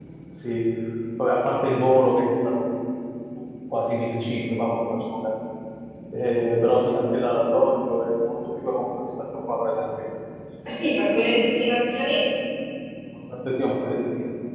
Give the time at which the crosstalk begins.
none

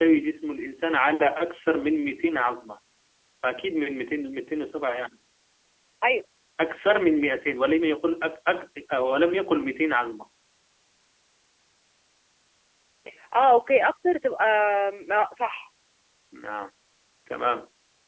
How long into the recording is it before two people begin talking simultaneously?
none

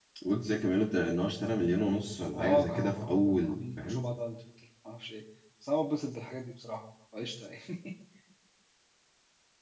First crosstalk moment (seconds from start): 2.3 s

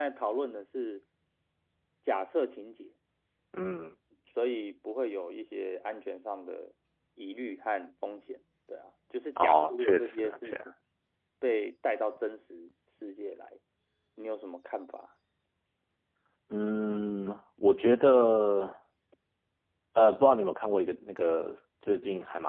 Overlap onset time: 9.4 s

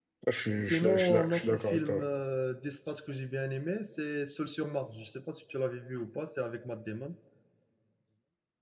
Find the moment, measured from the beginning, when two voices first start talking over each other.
0.6 s

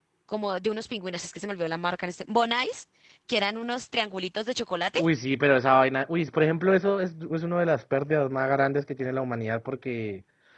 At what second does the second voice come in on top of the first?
none

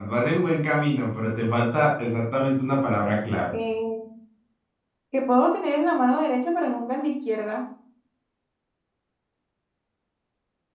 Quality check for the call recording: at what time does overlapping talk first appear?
none

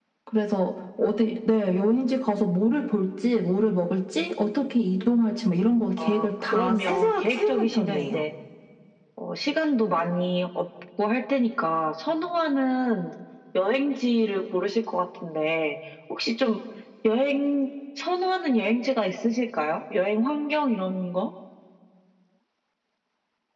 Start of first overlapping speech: 6.0 s

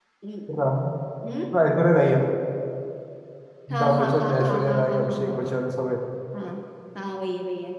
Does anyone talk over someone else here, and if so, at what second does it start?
3.7 s

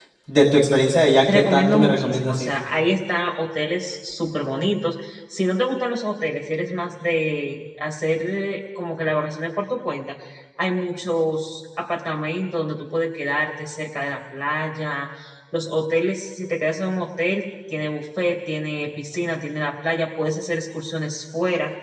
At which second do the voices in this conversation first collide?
1.3 s

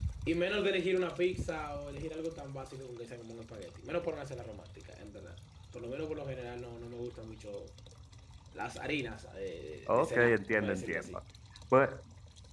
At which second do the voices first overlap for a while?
9.9 s

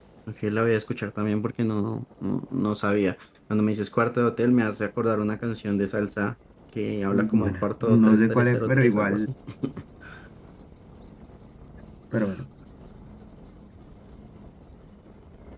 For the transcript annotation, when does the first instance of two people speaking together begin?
7.1 s

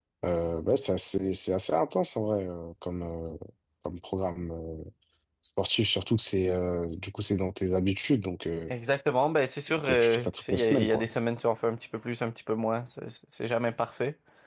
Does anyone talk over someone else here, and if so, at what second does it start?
9.7 s

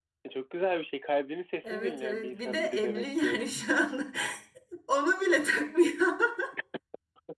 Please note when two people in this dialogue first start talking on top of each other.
1.6 s

